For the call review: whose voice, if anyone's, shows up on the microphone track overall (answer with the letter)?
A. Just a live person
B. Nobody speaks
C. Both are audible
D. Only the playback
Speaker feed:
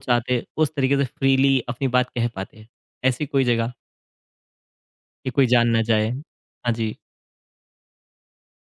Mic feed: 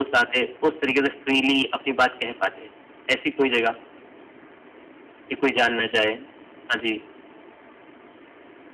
D